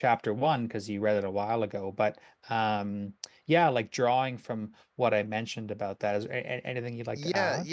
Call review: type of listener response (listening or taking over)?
taking over